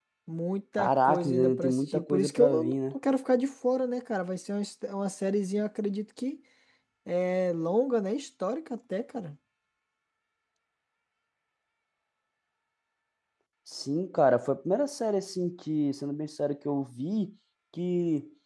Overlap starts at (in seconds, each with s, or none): 0.8 s